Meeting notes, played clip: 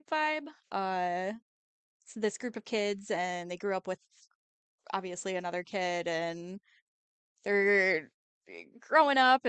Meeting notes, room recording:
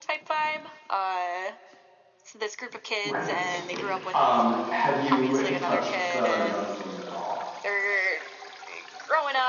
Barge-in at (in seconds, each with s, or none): 3.0 s